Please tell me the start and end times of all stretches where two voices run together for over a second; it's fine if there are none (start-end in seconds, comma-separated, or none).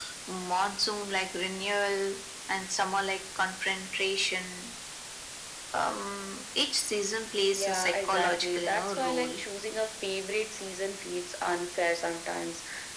7.5-9.4